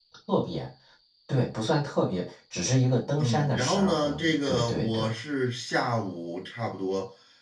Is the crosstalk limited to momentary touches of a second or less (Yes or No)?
No